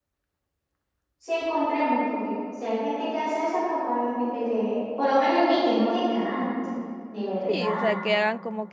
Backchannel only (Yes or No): No